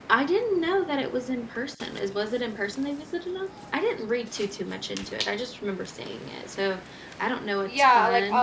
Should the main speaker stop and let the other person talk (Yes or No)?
Yes